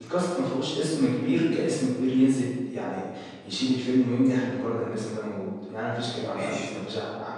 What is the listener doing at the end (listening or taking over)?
listening